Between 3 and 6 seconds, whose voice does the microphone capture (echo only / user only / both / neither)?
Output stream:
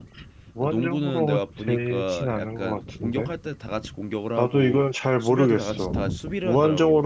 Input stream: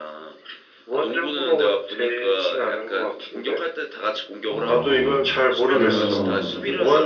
both